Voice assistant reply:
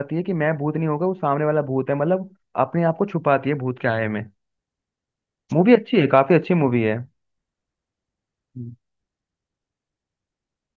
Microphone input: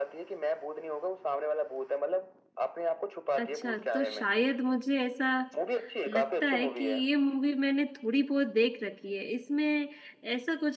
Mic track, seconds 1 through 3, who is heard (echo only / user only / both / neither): echo only